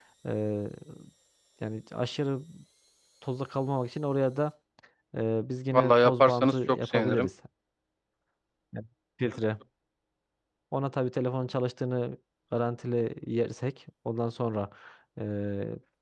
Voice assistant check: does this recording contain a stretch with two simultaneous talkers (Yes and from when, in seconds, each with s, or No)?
Yes, from 5.7 s